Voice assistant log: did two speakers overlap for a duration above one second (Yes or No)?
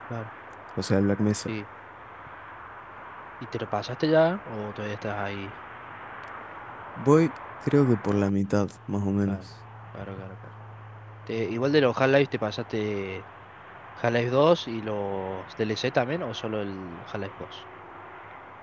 No